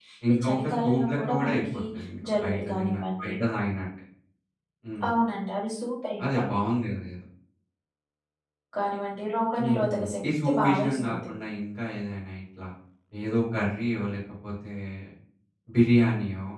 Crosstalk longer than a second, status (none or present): present